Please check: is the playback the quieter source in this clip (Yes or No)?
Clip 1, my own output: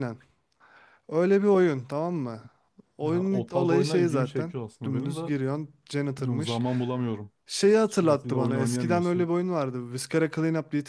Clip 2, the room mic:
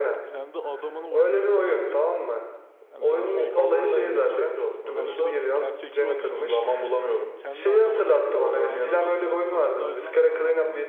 No